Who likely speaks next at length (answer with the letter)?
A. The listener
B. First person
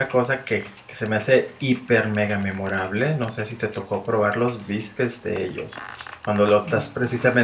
B